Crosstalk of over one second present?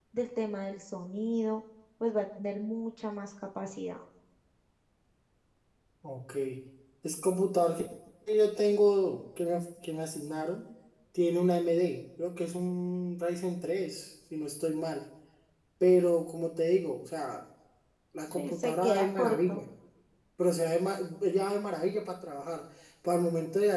Yes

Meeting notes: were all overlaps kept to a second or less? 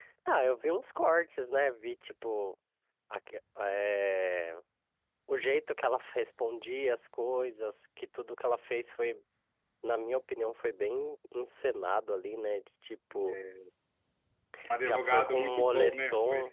No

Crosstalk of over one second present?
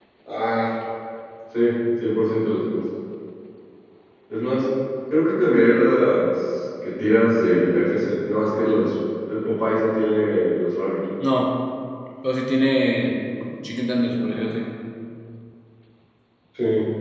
No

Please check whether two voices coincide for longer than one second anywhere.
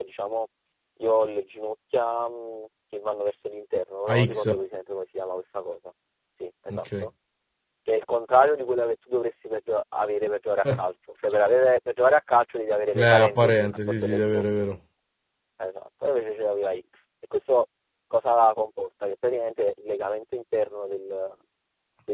Yes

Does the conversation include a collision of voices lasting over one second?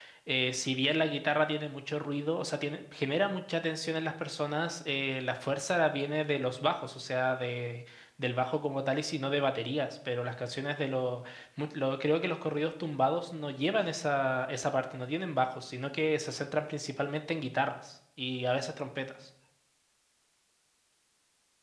No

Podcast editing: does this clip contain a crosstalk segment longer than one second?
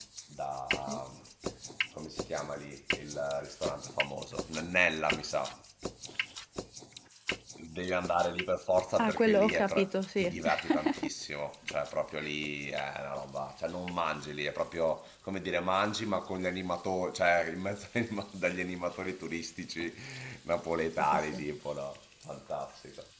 Yes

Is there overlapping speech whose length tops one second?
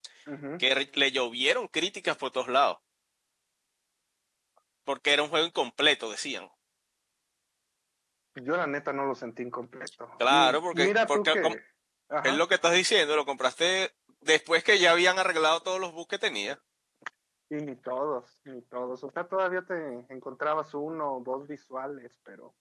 Yes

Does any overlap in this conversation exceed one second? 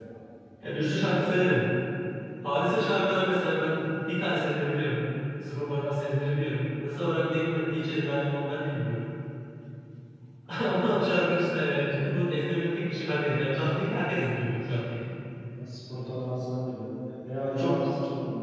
No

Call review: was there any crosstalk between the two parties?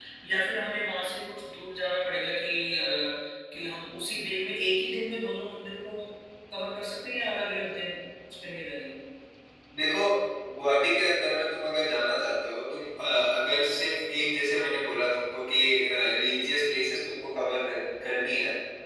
No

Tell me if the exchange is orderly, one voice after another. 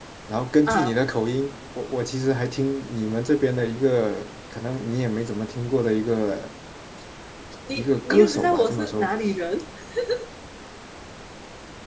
No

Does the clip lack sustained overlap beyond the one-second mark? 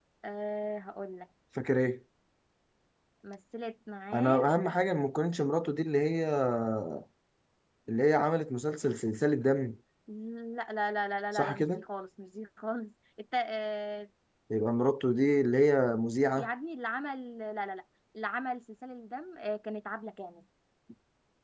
Yes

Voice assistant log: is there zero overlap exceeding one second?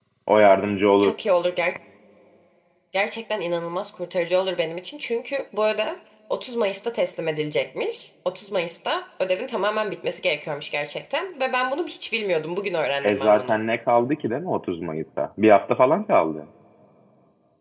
Yes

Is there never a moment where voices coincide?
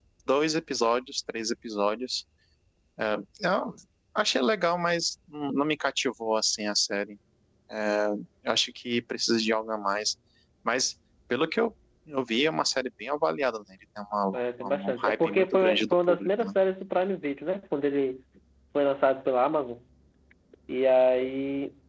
No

